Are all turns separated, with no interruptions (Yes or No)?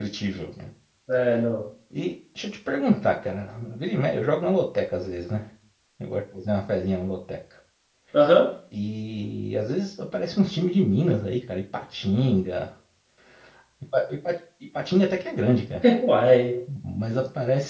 Yes